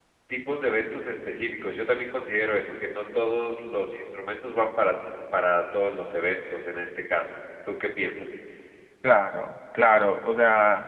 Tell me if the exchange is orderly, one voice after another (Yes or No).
Yes